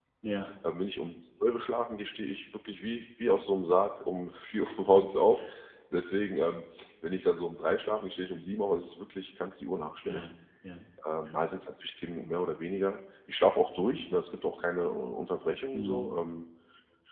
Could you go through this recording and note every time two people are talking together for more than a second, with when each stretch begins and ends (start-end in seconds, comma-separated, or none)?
none